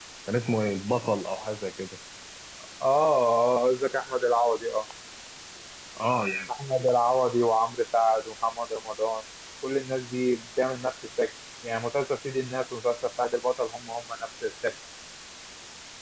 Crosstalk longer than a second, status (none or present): none